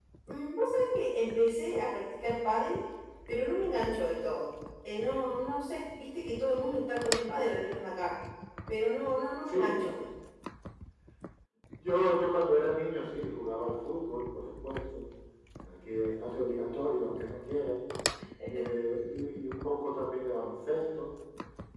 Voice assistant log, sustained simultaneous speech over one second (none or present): none